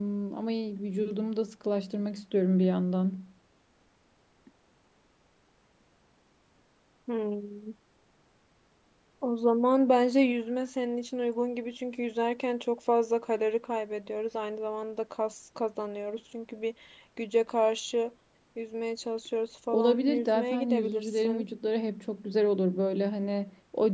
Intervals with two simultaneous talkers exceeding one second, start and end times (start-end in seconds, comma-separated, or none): 19.7-21.4